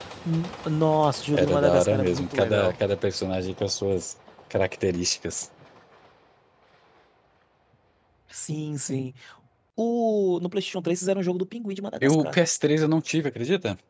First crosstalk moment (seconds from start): 1.3 s

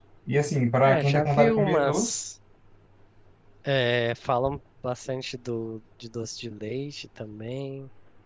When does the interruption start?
0.8 s

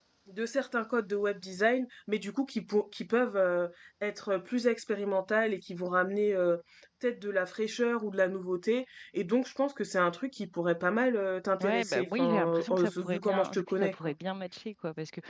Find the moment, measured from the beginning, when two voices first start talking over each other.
11.6 s

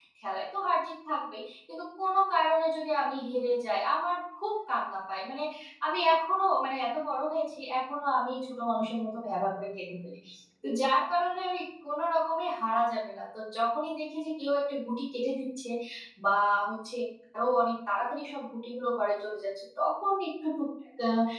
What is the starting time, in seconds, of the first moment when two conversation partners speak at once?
none

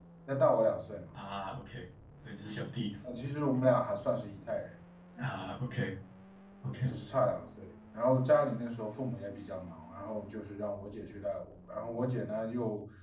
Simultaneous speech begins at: none

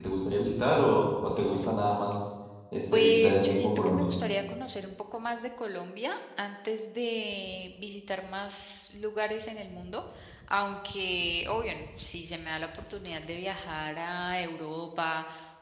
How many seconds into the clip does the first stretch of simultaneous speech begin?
2.9 s

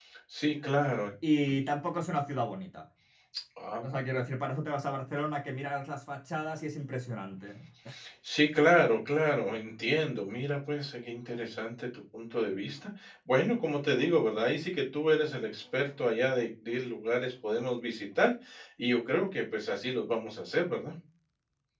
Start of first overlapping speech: none

